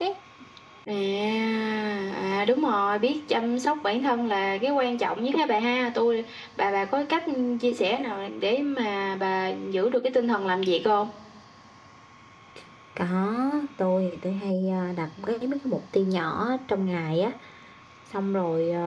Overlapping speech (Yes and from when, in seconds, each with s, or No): No